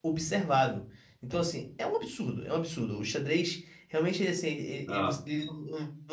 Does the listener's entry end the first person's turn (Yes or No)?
No